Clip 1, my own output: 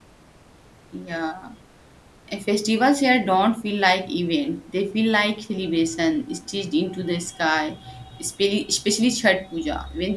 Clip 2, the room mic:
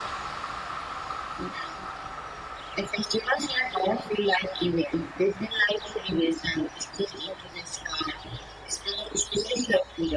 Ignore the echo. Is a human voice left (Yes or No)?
No